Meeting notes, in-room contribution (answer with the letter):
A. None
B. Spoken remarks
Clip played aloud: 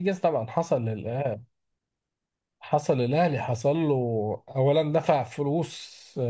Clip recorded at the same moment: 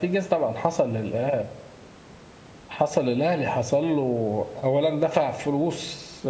A